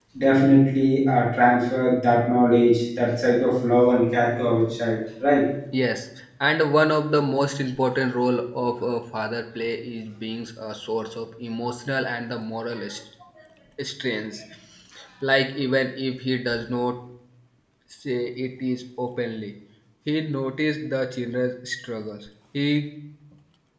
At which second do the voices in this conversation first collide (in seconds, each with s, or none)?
none